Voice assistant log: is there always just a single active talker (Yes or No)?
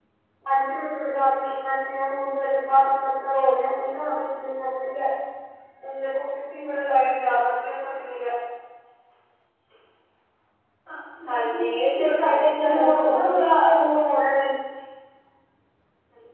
No